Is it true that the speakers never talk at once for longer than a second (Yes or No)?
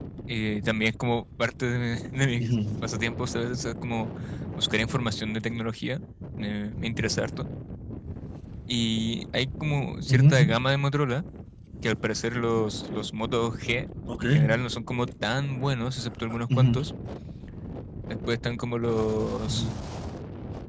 Yes